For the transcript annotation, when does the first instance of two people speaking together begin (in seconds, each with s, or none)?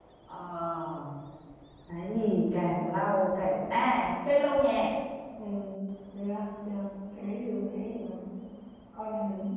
none